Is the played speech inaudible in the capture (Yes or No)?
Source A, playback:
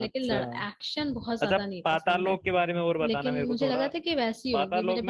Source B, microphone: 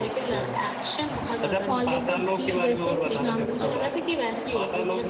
No